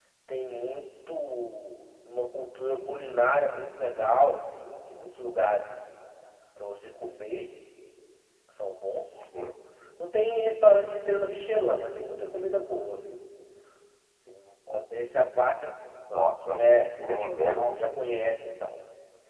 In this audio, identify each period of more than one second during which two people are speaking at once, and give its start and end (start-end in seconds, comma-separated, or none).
none